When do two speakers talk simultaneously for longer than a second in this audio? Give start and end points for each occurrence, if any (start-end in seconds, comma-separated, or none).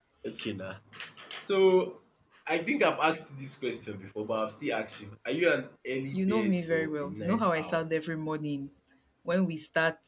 6.1-7.8